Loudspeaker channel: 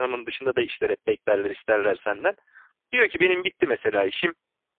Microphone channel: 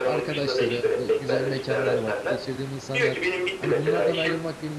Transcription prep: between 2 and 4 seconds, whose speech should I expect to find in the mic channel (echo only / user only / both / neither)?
both